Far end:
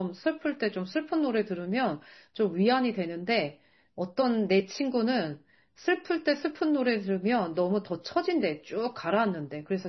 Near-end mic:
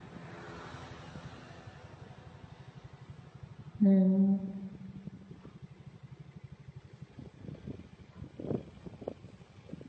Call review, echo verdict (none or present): none